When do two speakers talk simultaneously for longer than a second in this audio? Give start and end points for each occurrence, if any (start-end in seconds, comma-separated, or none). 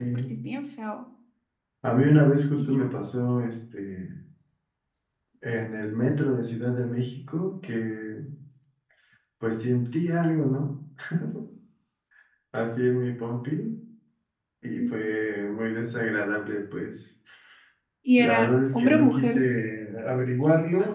18.2-19.4